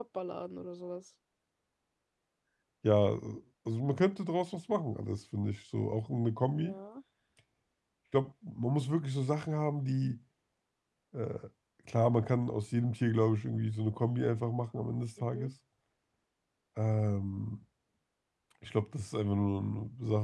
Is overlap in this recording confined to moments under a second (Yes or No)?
Yes